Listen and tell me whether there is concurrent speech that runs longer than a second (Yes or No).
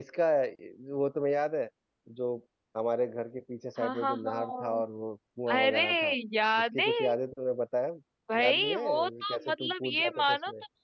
Yes